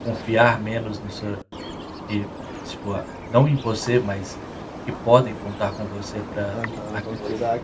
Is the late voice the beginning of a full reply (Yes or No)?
Yes